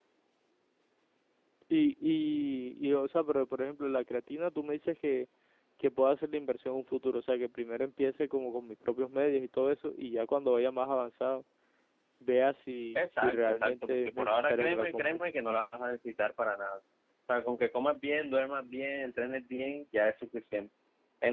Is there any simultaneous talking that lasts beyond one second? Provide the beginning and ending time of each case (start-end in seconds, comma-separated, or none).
12.9-15.2